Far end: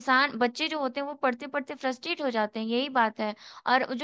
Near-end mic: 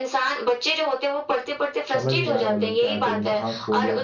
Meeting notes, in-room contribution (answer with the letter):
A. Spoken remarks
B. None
A